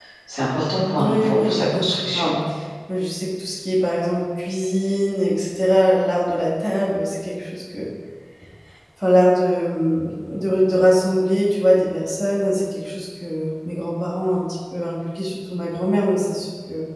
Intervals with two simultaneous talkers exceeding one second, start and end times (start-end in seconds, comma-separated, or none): 1.0-2.4